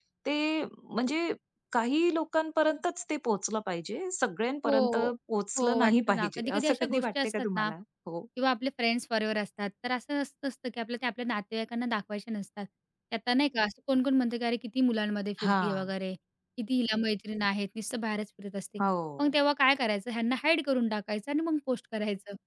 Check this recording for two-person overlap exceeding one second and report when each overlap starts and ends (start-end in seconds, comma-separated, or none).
5.6-7.7